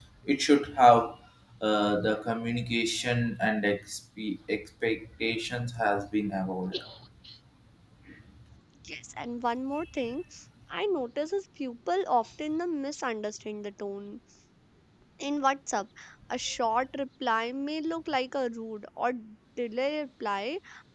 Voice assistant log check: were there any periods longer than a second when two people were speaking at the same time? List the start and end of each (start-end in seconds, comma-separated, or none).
none